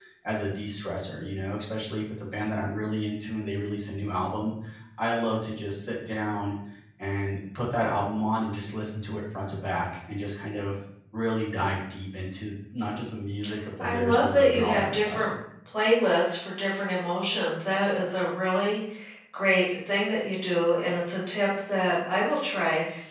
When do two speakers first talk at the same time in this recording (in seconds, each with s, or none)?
13.8 s